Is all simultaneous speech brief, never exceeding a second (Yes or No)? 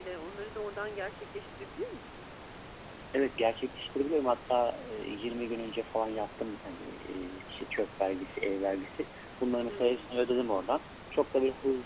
Yes